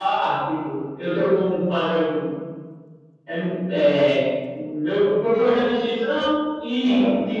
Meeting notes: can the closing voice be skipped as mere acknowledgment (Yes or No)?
Yes